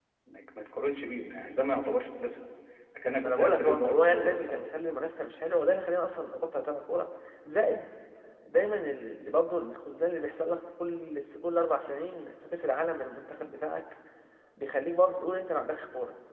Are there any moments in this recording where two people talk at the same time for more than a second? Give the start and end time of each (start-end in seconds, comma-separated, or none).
3.2-4.6